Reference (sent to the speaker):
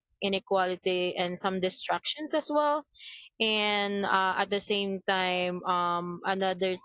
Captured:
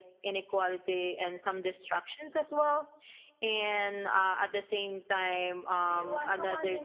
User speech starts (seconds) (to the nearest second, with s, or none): 6 s